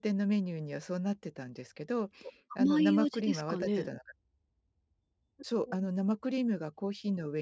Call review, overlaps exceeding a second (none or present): present